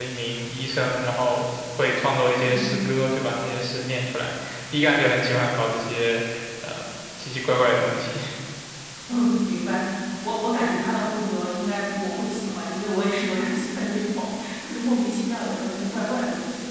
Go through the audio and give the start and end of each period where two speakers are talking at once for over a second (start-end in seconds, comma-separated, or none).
none